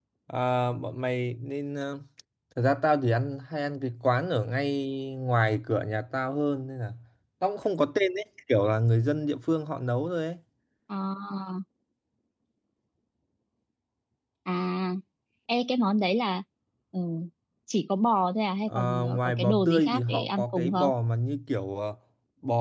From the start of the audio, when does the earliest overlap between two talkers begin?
18.6 s

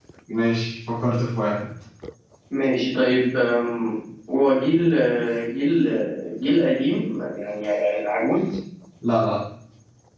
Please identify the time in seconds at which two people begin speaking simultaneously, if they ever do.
none

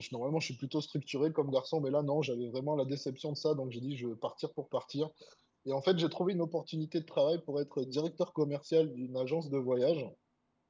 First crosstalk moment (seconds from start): none

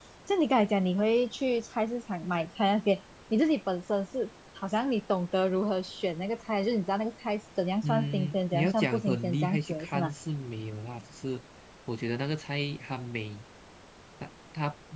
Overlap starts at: 7.8 s

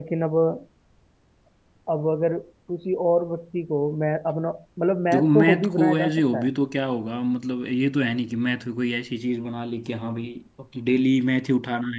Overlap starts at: 5.1 s

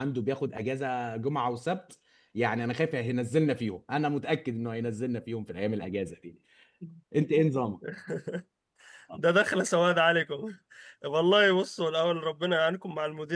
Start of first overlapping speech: none

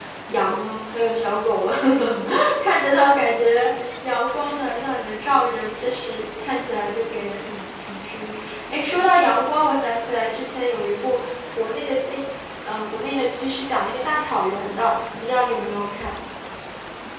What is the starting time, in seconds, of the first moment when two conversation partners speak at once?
none

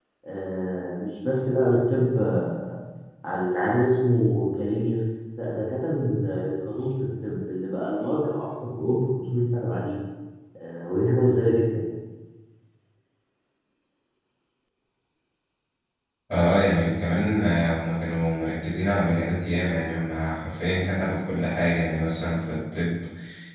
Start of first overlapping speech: none

